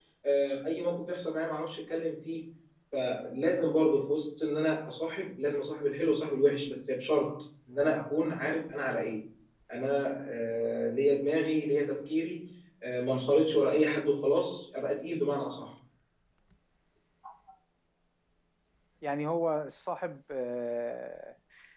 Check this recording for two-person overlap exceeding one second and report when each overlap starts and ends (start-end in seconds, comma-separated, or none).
none